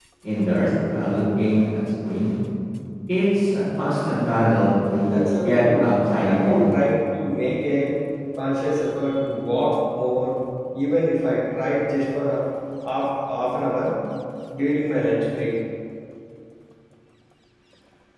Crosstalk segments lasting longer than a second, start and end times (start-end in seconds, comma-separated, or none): 5.1-6.7